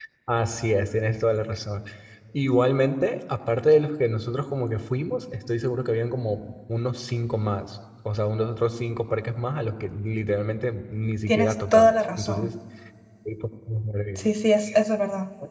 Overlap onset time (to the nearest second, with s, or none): 11 s